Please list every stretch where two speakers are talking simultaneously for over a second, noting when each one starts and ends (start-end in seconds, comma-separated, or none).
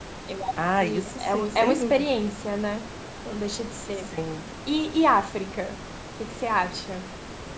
0.8-2.1